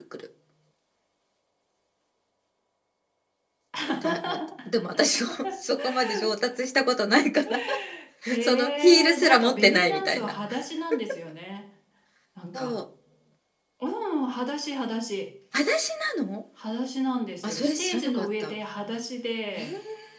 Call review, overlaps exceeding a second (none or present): present